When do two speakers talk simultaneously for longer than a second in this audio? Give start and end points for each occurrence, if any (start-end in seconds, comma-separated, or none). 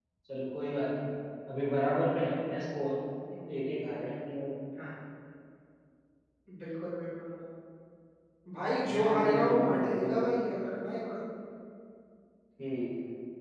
9.0-10.2